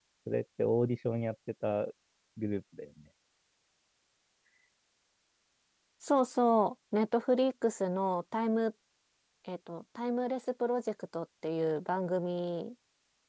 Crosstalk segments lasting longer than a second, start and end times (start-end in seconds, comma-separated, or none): none